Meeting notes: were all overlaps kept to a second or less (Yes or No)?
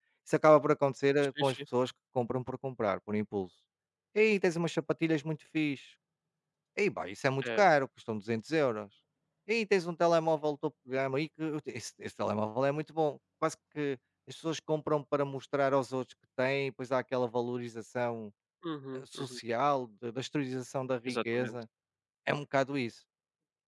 Yes